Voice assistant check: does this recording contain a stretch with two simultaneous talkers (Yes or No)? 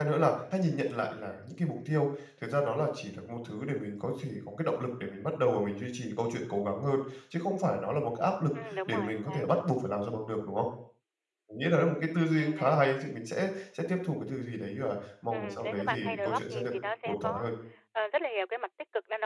Yes